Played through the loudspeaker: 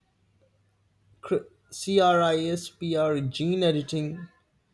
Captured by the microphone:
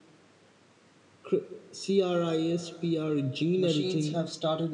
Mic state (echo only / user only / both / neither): both